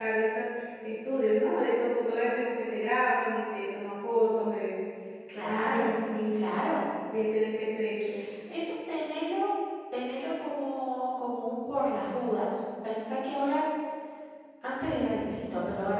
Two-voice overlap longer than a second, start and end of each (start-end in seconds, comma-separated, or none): none